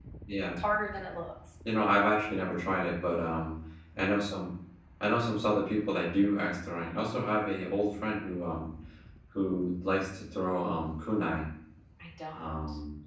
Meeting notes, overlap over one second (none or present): none